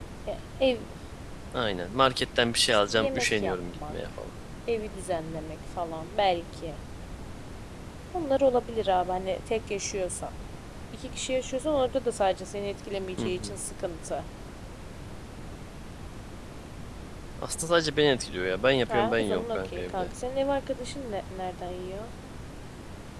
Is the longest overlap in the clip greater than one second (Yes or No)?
Yes